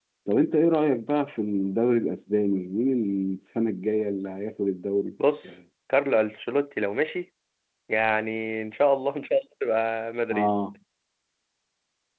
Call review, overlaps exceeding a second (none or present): none